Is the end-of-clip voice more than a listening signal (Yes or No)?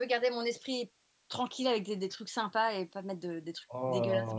Yes